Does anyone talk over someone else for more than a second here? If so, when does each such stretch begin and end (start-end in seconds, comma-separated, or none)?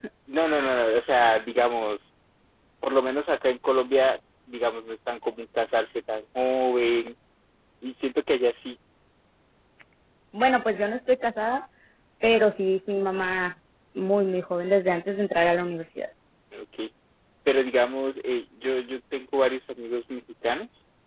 none